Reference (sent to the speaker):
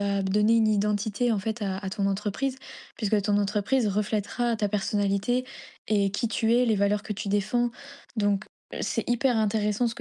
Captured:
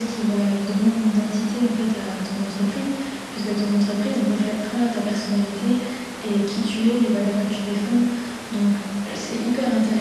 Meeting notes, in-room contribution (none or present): none